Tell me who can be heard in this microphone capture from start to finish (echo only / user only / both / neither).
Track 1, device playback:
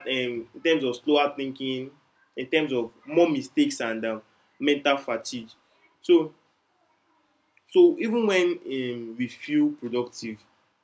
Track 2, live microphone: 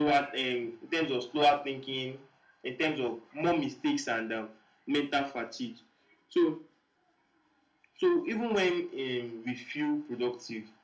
echo only